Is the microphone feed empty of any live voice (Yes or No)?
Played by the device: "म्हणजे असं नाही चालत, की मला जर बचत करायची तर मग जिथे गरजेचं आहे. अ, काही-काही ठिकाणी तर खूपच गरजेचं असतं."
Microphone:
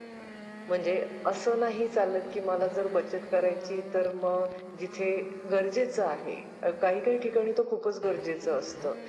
Yes